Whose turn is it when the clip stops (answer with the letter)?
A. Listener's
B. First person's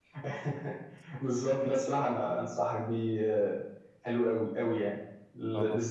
B